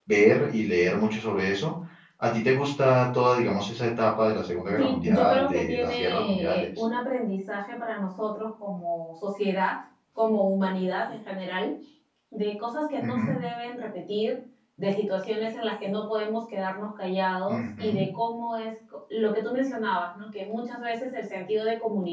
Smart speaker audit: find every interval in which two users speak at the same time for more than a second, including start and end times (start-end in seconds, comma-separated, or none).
4.8-6.7